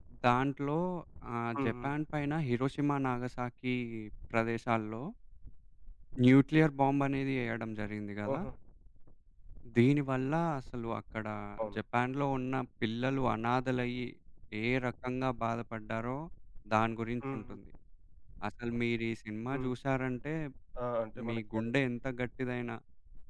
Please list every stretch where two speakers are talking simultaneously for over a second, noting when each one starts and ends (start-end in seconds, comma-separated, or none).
none